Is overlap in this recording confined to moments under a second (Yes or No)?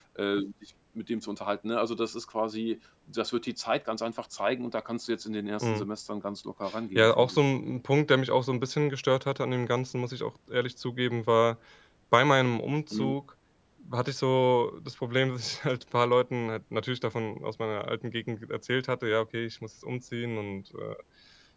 Yes